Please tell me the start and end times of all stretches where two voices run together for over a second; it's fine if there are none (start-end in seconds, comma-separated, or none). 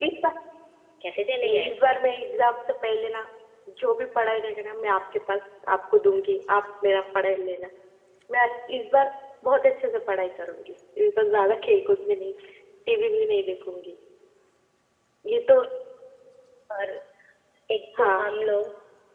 none